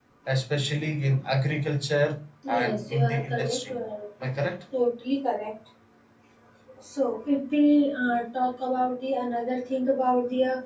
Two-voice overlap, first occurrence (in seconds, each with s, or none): 2.4 s